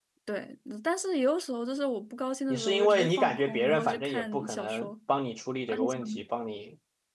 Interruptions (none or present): present